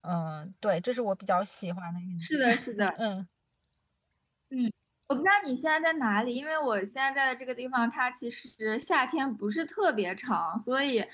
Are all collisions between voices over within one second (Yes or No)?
Yes